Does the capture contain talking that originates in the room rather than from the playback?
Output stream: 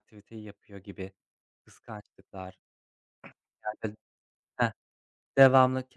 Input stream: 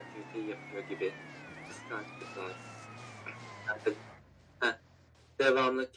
No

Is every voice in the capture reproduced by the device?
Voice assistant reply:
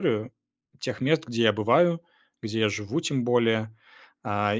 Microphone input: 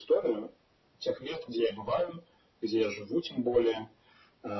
Yes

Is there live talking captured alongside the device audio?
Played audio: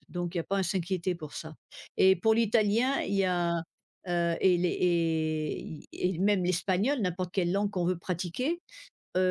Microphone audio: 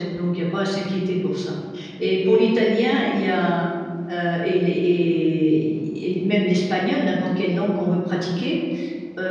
No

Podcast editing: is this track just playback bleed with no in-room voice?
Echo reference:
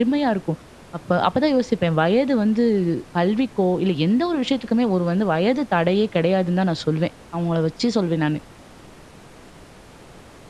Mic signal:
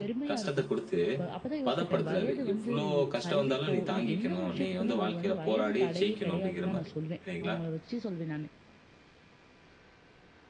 No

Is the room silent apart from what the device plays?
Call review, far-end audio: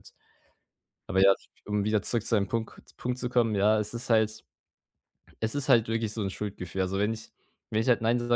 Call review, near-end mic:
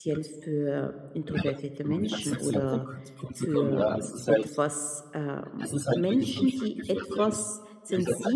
No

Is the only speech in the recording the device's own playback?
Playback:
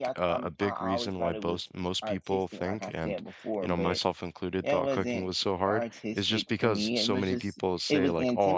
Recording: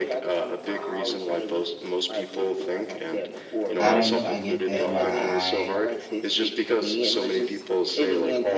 No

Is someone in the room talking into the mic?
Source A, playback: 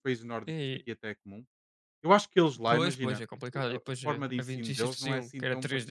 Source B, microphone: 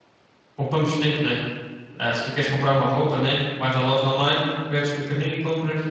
Yes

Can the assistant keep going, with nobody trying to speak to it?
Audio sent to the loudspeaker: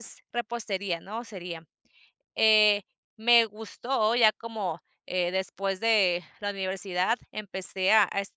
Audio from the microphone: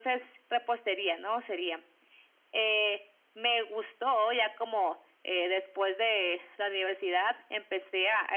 Yes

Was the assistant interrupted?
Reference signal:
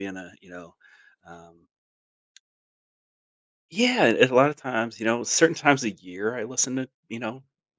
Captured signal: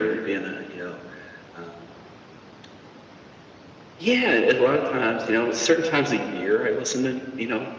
No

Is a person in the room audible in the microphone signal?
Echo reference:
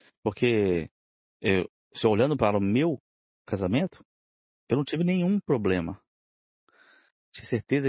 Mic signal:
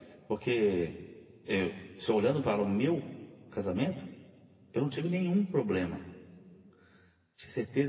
No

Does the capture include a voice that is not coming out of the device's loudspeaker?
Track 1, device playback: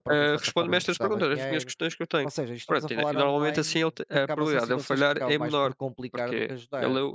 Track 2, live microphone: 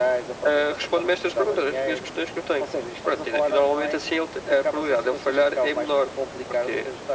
No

